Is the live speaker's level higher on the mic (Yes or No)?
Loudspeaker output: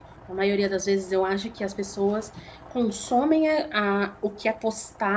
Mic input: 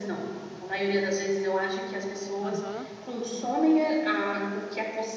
No